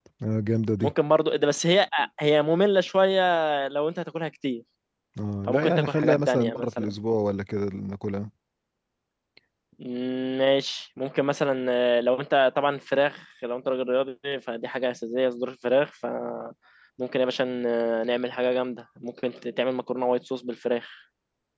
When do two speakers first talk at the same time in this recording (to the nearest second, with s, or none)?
5 s